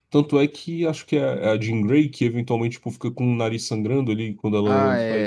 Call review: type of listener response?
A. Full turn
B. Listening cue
A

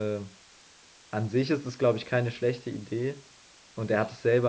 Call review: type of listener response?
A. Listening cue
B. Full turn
A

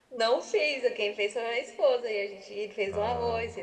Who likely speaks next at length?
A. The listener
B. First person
B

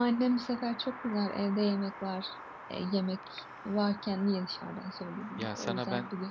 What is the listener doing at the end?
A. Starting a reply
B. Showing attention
A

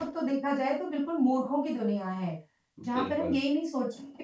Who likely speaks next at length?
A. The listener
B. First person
B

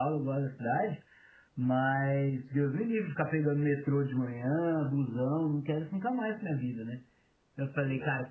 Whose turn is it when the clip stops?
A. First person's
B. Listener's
A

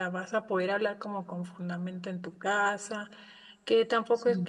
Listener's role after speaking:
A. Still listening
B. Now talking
A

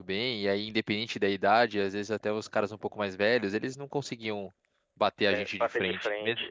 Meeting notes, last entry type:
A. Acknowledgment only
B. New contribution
B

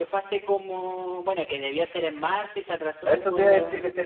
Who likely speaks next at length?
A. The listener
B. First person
A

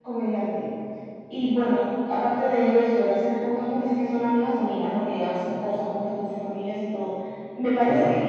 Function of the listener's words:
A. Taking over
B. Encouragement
B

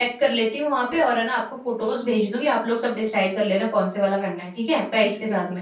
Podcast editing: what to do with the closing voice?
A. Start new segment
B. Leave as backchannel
A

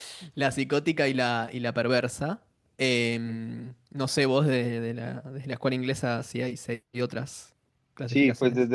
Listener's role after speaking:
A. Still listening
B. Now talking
B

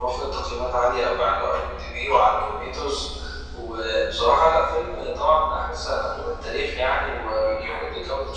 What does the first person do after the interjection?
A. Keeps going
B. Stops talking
A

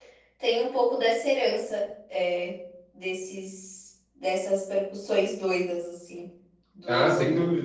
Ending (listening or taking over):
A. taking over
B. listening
A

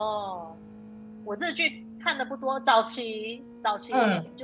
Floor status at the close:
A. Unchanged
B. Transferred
A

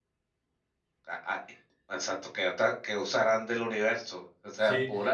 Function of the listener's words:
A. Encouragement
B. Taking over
B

